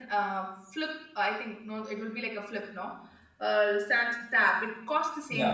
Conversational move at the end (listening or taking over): listening